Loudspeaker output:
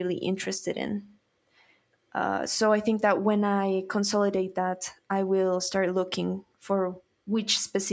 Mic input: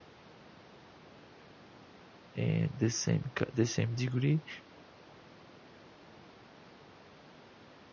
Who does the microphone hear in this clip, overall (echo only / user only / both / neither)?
user only